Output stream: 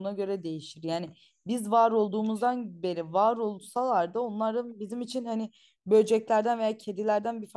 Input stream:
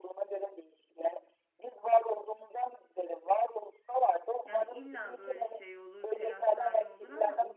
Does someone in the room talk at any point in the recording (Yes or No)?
Yes